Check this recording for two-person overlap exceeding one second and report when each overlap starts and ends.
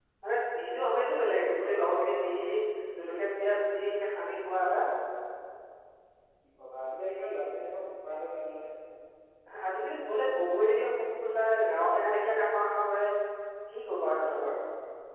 none

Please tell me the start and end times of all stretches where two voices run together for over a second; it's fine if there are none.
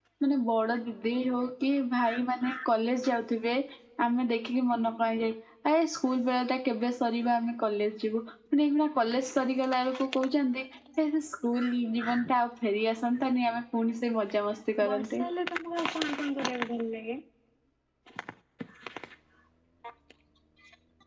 none

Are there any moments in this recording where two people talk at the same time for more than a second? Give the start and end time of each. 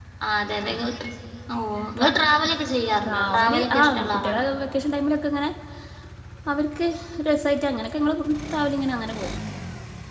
3.0-4.5

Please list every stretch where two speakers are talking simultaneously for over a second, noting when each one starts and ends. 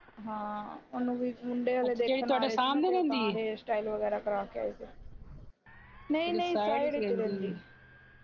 2.0-3.4, 6.3-7.5

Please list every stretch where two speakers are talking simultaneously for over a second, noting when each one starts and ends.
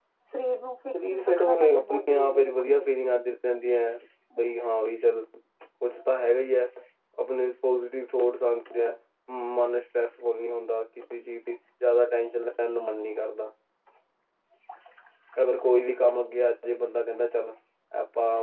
0.9-2.9

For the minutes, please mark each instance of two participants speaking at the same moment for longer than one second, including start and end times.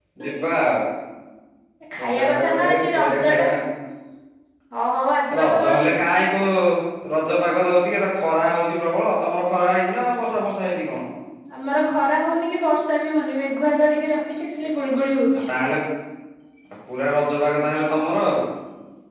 2.0-3.5

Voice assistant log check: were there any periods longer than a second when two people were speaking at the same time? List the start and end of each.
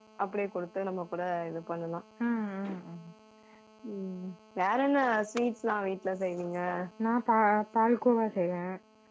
none

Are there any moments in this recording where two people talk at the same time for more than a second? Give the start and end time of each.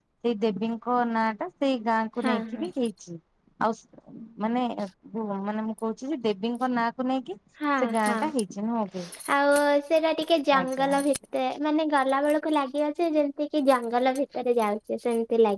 none

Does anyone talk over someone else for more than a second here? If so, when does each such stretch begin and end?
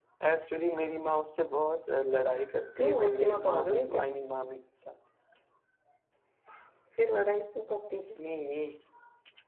2.8-4.0

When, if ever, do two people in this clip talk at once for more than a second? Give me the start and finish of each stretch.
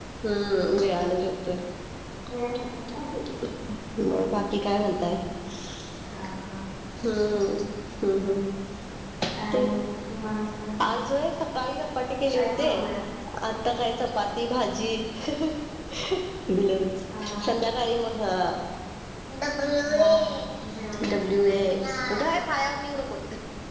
none

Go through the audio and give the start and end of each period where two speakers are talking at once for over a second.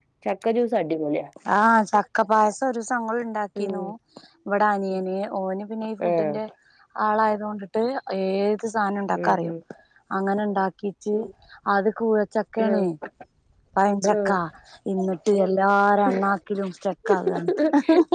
none

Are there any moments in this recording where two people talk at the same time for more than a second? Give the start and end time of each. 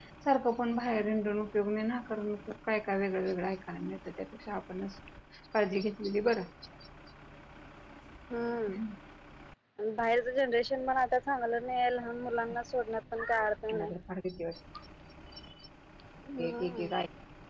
none

